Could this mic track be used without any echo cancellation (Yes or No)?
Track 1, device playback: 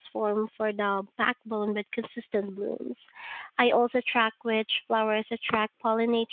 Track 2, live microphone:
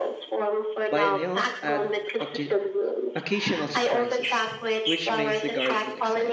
No